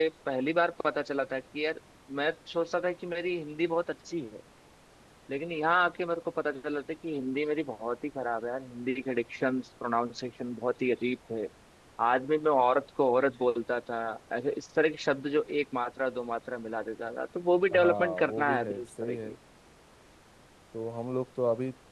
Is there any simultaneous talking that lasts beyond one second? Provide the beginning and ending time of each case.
17.7-19.3

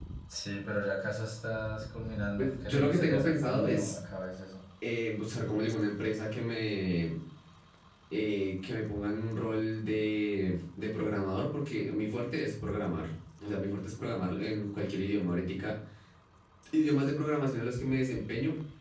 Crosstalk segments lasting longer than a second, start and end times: 2.4-3.9

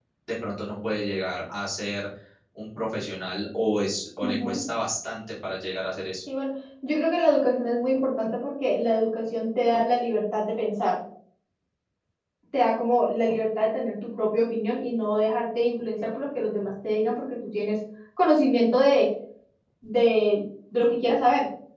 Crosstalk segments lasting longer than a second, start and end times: none

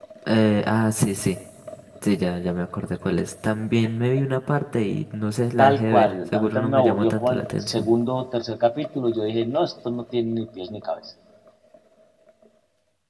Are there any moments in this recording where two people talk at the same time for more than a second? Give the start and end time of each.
5.6-7.9

